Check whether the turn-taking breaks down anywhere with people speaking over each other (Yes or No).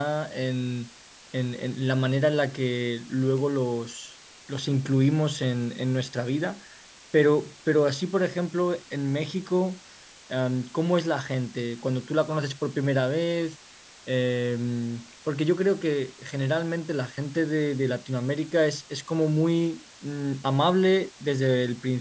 No